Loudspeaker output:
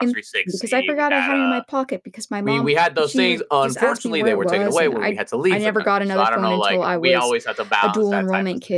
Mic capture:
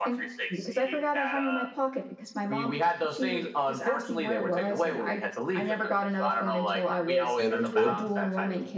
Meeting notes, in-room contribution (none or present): present